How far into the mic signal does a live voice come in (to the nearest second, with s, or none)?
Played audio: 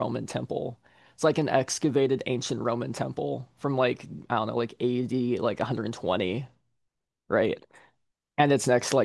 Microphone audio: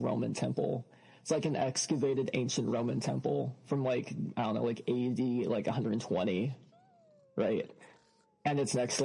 none